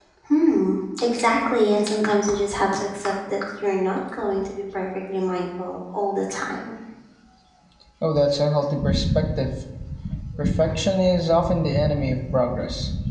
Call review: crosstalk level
none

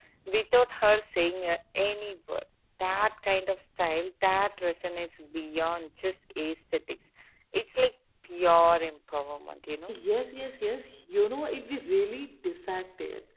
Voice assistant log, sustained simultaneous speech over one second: none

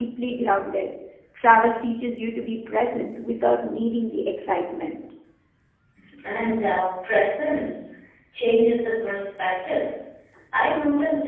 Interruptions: none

